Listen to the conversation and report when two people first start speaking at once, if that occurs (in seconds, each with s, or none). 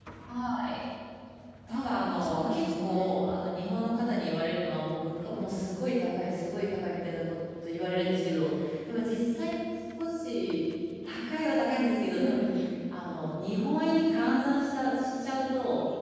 1.7 s